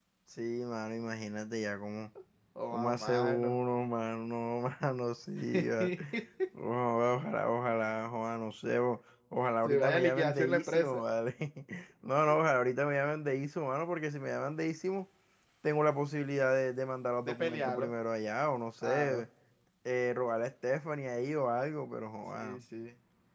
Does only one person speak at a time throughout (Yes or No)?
No